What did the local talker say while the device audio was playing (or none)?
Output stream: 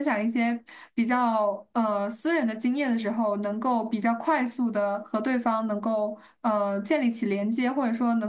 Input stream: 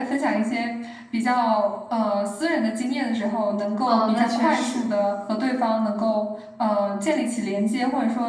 哦，那确实。